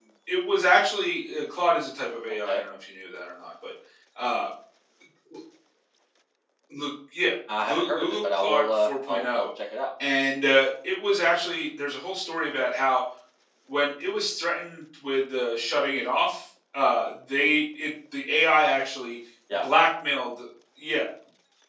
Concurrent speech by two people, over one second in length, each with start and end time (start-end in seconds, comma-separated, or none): 7.7-9.5